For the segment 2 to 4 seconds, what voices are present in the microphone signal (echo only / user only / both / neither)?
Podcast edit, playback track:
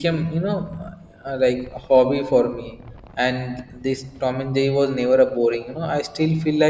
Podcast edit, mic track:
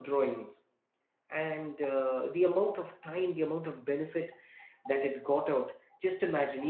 user only